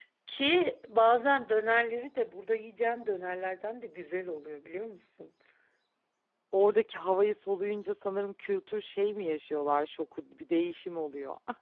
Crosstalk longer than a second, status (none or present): none